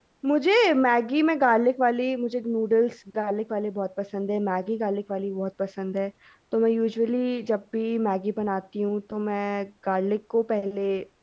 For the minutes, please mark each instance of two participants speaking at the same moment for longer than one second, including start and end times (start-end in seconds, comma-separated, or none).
none